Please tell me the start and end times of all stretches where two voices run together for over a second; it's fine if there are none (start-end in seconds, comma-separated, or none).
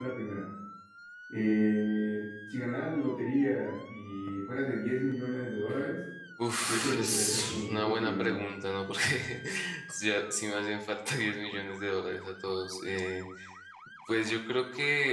6.7-8.4